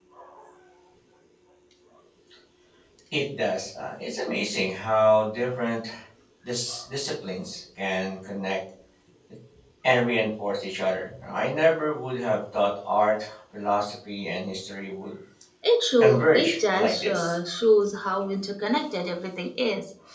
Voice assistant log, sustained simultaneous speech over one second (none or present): present